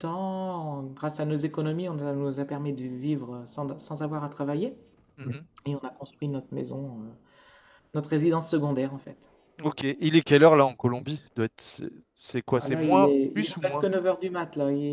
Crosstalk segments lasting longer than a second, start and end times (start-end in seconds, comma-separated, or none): 12.6-13.8